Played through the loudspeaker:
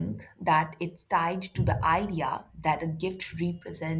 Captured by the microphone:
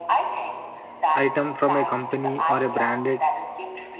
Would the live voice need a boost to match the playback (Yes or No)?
No